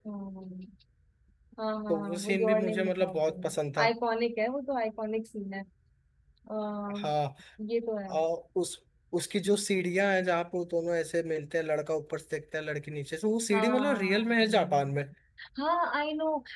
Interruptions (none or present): present